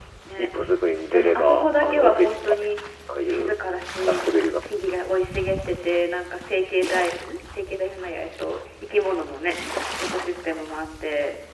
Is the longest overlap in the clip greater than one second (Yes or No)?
Yes